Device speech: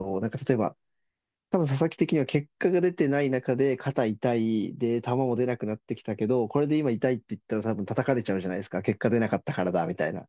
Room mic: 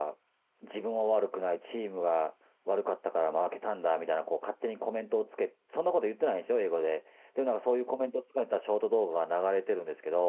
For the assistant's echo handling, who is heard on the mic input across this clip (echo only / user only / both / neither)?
user only